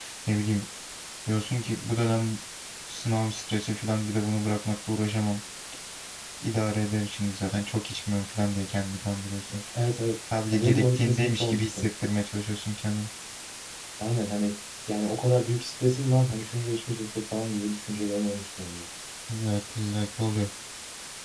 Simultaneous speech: Yes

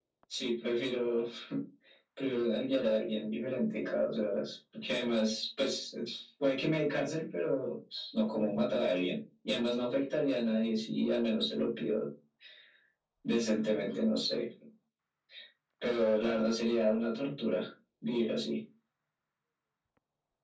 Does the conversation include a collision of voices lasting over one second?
No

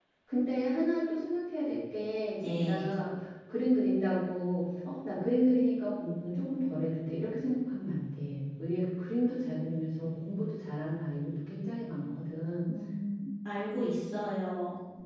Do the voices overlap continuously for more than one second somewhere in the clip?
No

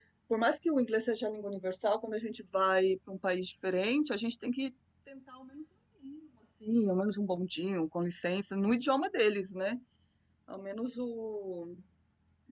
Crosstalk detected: No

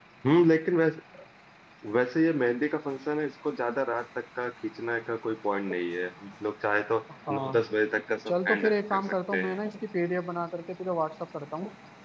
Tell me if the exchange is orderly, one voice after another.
No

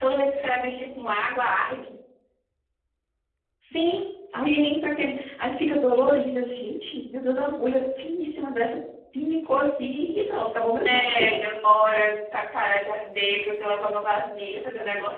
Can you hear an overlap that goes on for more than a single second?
No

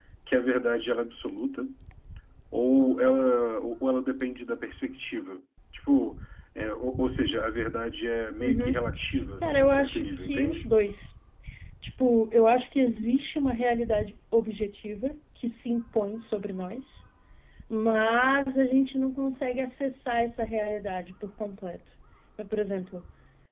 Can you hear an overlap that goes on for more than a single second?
Yes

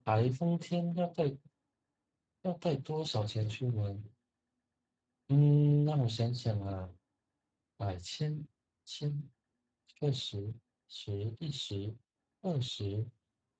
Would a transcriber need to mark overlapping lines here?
No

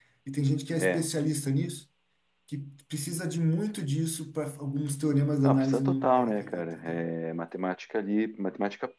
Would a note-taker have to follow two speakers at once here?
Yes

